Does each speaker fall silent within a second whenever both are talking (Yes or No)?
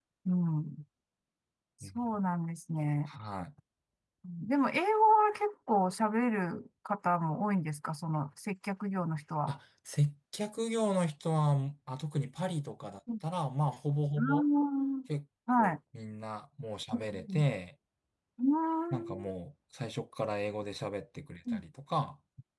Yes